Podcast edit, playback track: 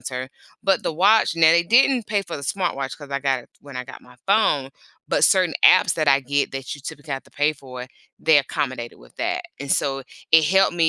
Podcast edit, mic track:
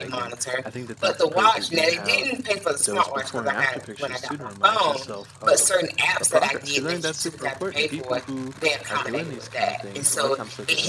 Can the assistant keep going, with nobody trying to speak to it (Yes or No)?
No